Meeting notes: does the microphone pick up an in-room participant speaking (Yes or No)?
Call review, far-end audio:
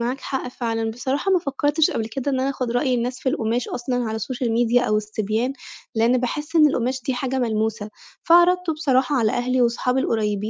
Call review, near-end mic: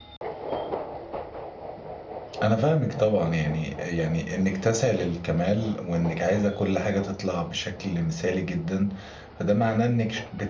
Yes